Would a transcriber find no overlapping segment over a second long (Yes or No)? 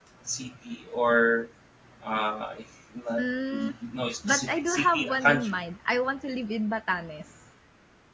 No